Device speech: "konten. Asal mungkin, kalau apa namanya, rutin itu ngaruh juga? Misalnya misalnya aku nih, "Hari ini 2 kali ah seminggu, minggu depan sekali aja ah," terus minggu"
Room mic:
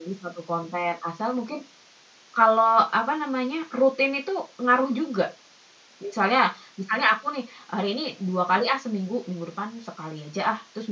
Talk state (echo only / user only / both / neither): echo only